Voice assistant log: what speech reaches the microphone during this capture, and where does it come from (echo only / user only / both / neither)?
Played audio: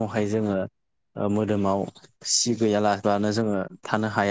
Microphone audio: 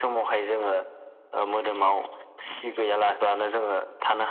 echo only